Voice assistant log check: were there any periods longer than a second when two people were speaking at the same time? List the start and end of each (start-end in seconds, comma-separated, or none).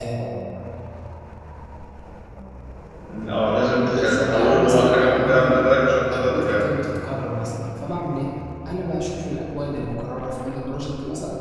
3.9-5.5